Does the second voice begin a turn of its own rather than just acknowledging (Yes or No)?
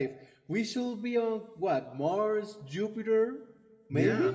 Yes